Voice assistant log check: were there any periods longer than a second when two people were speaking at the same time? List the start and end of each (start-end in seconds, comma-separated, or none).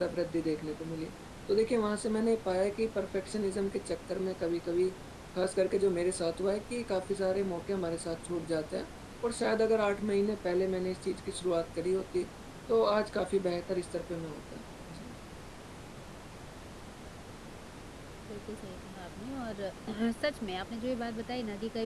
none